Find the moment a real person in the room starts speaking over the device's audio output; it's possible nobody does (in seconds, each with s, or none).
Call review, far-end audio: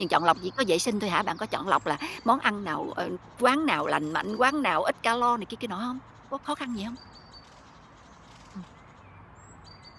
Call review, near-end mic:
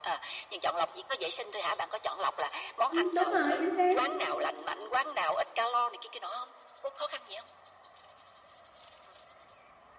2.9 s